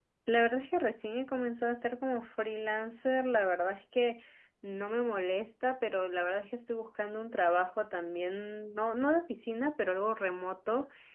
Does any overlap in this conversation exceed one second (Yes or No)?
No